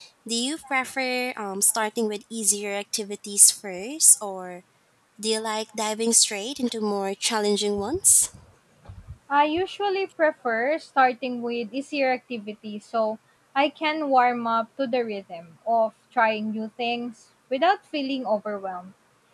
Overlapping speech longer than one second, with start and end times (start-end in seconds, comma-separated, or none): none